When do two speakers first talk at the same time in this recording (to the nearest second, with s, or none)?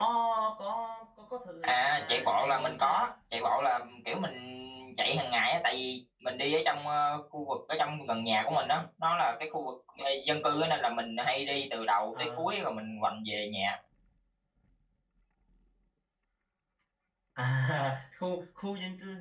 2 s